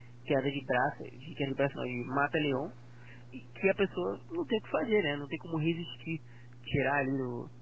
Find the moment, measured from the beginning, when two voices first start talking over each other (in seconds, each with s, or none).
none